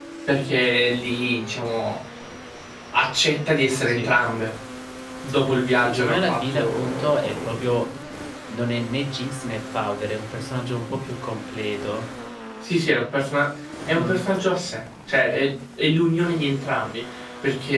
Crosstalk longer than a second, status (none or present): present